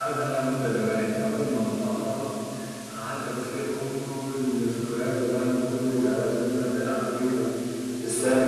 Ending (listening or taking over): listening